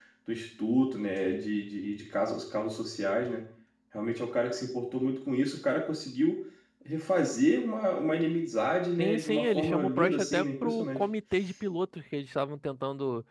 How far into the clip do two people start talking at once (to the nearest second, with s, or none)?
9 s